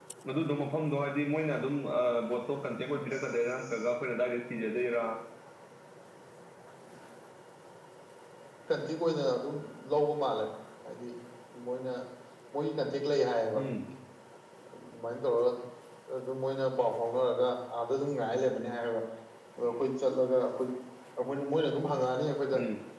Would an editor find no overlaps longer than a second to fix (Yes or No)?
Yes